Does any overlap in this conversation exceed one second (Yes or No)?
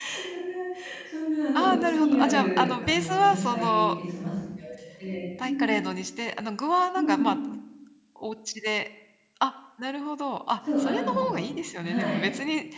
Yes